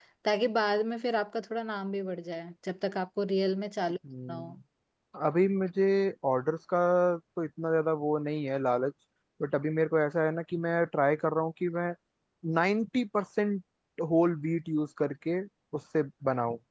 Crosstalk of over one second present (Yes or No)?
No